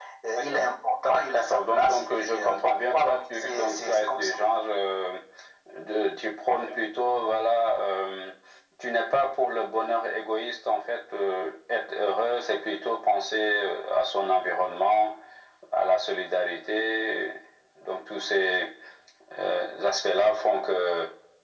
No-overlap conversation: No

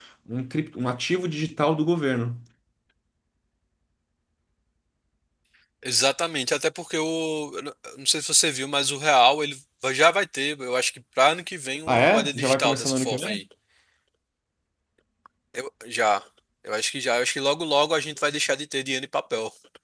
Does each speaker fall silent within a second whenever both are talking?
No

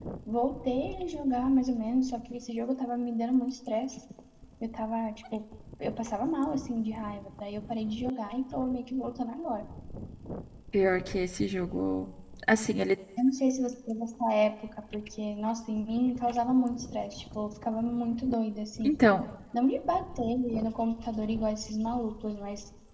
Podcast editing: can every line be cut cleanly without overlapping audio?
Yes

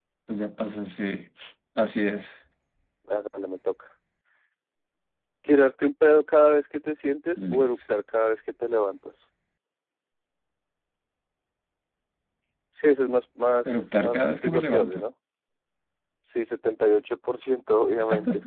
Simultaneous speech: Yes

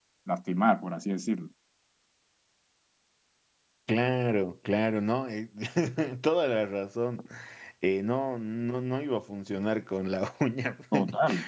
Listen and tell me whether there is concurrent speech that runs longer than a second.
No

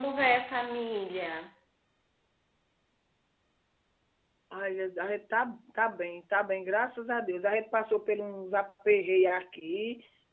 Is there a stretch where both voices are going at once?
No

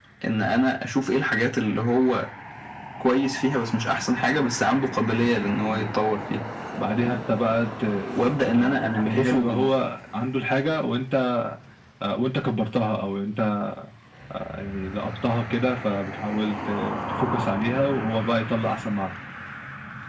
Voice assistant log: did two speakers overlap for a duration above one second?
Yes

